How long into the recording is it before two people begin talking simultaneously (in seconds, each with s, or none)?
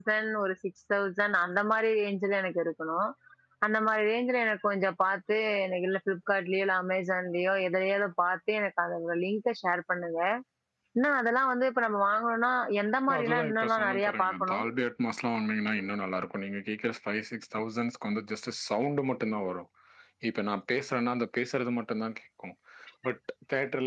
13.1 s